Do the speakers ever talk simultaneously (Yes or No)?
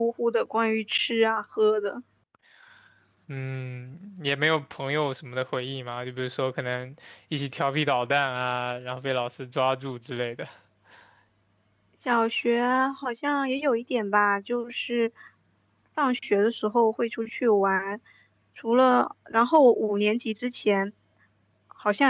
No